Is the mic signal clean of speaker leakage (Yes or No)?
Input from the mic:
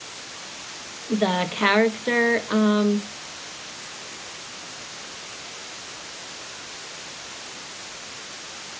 Yes